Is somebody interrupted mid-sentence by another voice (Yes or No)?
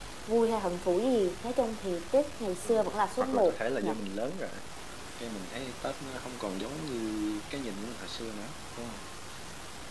Yes